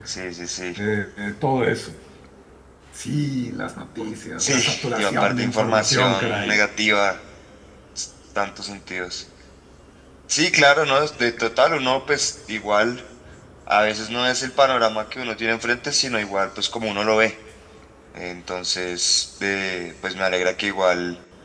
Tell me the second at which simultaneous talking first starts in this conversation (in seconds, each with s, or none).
4.4 s